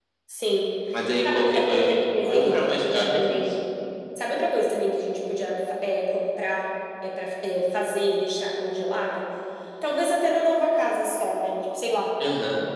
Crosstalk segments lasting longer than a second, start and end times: 1.2-3.4

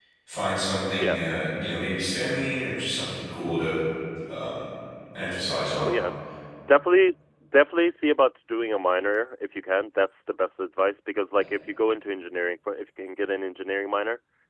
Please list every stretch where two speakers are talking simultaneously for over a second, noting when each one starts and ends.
none

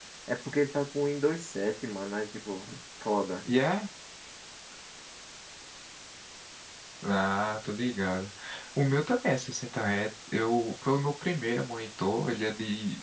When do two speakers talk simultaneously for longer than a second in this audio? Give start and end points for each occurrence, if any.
none

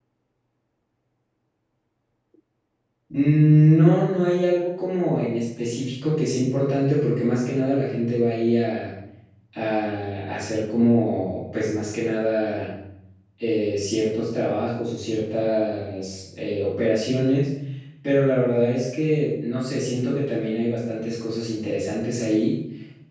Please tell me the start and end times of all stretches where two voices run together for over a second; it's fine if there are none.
none

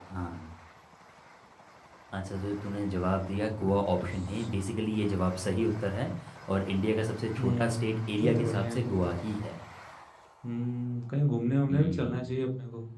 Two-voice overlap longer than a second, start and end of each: 7.4-9.0

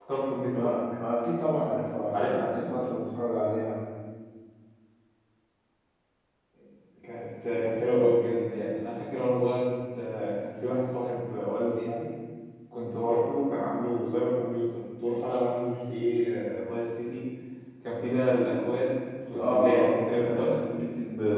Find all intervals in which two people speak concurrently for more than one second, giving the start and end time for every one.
19.4-20.6

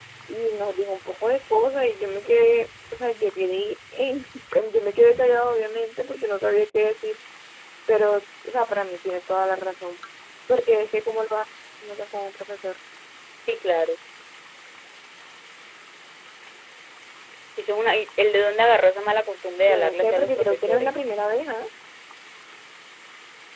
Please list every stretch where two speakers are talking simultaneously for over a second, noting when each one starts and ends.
19.6-20.9

